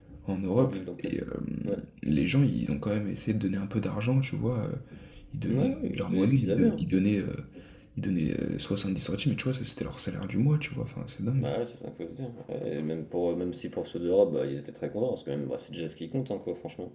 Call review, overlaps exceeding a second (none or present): present